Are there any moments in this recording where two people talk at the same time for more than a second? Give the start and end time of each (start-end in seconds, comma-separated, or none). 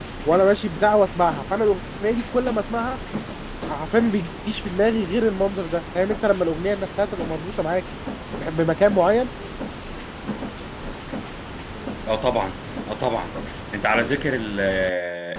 none